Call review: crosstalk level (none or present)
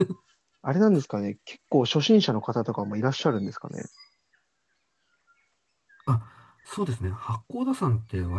none